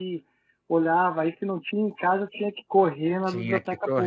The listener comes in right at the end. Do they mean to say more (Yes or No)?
Yes